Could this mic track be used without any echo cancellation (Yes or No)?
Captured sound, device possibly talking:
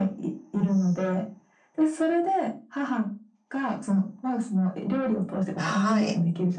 No